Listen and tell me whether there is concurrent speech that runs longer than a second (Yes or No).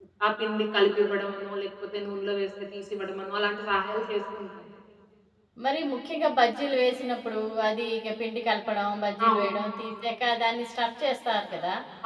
No